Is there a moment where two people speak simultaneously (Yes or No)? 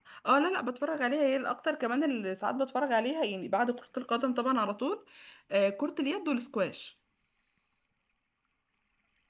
No